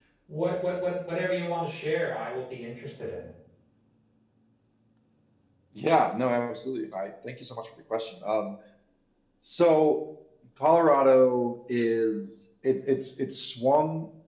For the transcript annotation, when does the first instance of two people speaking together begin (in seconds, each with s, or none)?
none